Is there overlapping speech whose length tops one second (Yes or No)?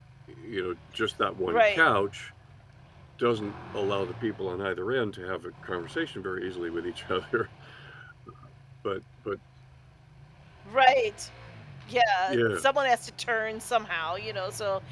No